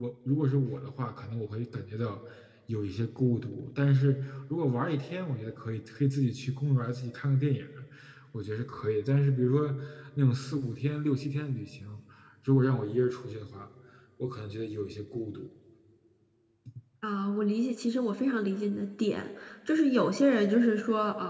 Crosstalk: none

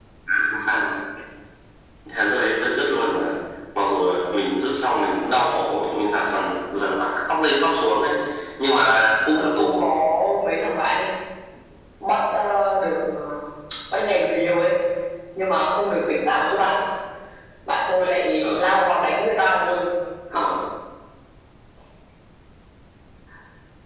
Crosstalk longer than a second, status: none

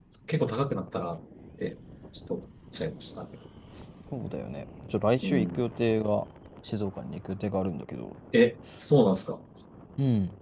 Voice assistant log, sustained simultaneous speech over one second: none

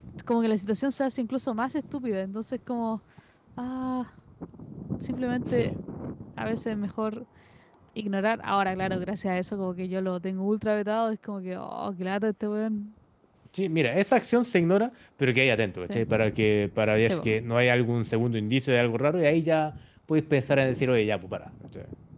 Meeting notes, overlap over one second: none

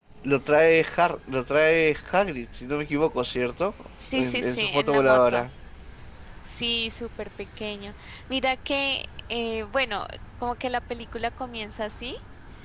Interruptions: present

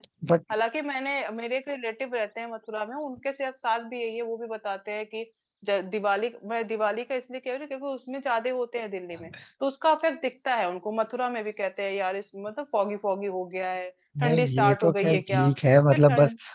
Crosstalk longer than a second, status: present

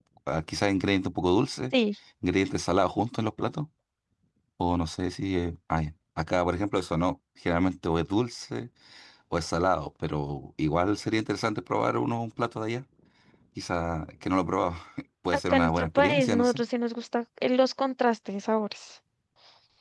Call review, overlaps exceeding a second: present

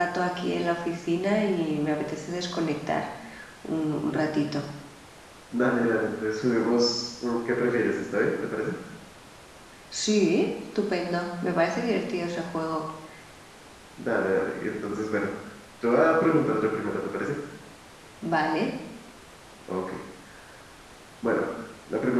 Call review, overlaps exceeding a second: none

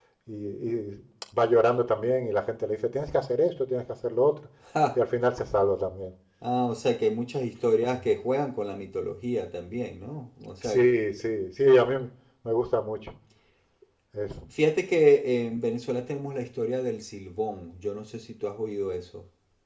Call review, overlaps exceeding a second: none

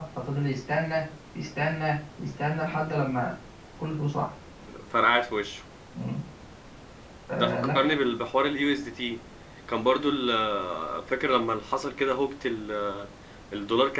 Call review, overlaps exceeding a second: none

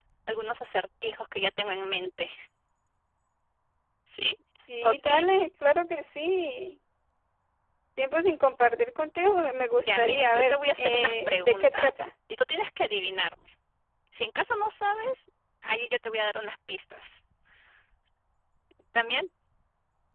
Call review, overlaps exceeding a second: present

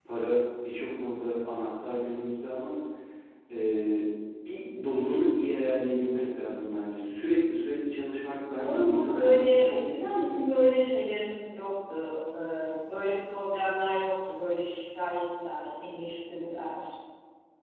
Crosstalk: present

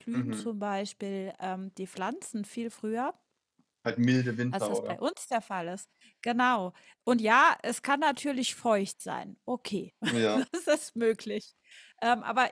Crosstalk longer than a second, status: none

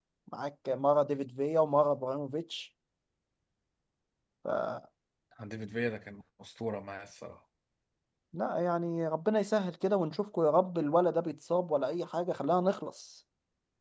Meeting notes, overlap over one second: none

